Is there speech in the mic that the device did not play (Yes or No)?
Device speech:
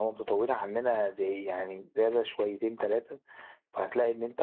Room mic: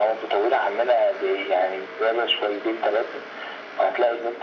No